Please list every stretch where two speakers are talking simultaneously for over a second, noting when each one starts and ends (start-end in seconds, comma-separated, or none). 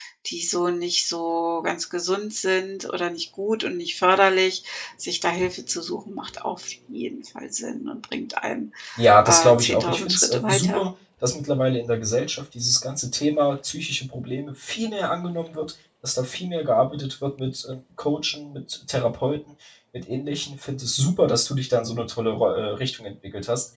9.2-10.9